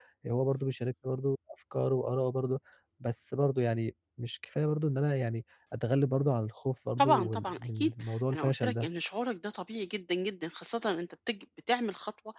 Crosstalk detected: Yes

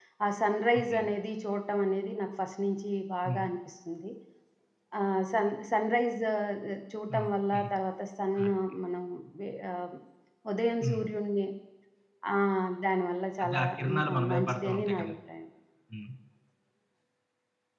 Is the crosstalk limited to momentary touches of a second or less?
No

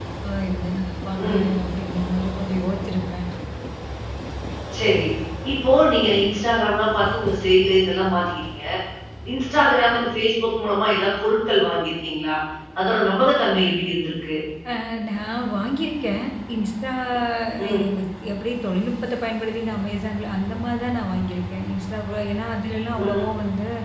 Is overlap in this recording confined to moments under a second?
Yes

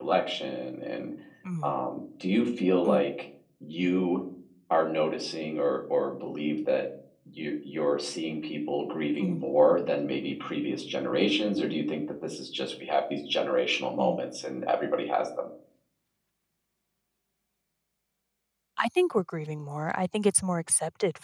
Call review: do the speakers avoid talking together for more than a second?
Yes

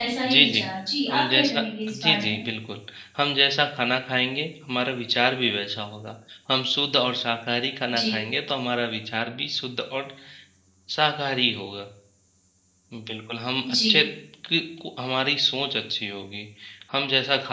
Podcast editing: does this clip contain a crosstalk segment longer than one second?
Yes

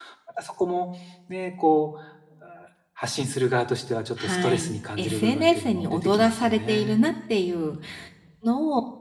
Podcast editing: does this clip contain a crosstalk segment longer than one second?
Yes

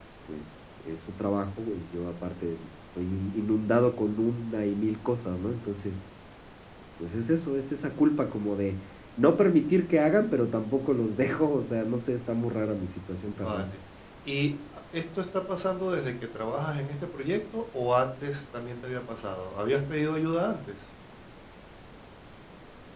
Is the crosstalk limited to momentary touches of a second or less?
Yes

